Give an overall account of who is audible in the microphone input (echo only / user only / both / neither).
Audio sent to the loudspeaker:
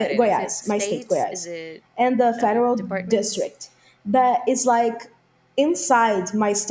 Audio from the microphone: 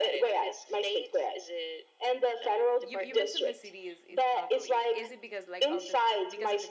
both